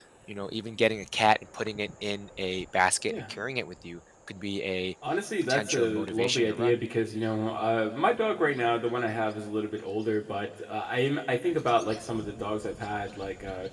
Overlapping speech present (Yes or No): Yes